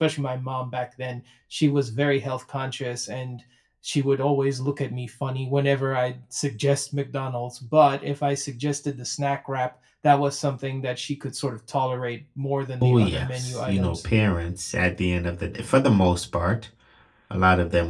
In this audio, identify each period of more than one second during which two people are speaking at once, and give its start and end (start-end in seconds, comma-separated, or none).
12.8-14.1